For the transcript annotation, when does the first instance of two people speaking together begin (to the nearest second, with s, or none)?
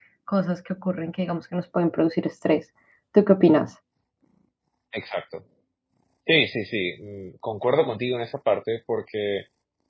none